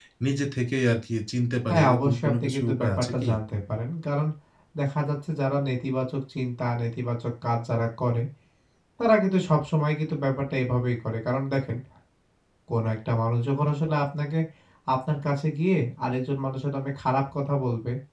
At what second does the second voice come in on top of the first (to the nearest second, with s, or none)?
2 s